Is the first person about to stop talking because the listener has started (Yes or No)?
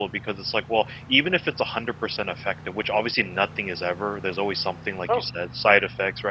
No